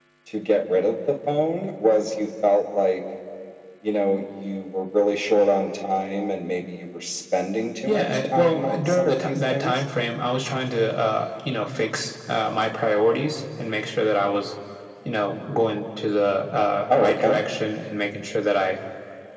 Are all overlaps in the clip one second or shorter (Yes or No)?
No